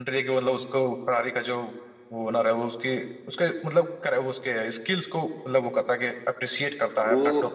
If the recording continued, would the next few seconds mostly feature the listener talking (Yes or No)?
Yes